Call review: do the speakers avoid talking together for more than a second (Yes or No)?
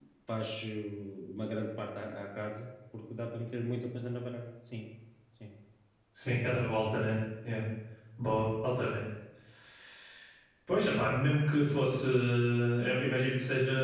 Yes